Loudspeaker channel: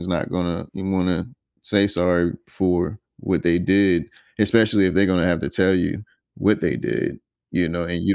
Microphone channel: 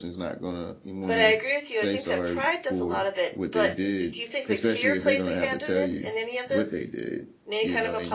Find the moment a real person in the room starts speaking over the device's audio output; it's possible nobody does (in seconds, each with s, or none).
1.1 s